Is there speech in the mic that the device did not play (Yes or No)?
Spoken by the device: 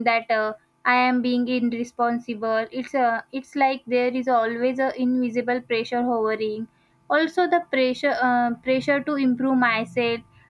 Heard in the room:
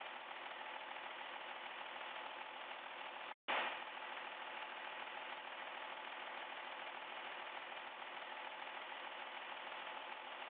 No